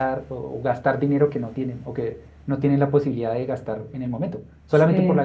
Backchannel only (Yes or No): Yes